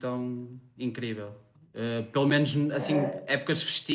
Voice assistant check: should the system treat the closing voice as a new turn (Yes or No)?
No